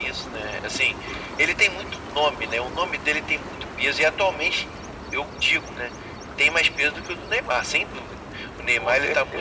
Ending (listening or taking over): listening